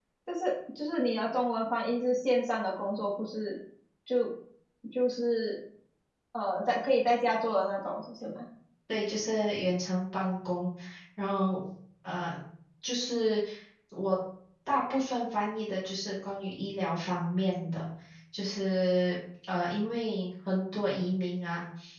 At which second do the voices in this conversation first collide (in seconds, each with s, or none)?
none